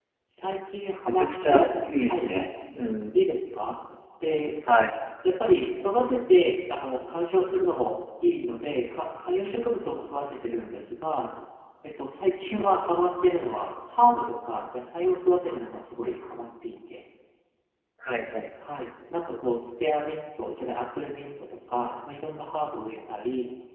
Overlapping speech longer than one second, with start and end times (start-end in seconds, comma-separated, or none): 1.1-2.3